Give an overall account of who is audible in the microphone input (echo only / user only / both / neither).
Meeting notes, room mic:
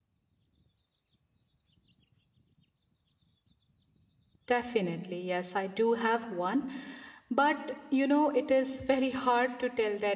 user only